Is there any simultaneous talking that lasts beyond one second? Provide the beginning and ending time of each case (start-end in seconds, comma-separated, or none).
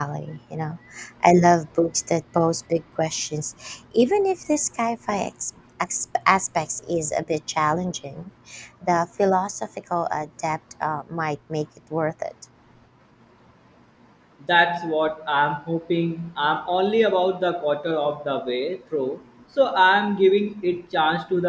none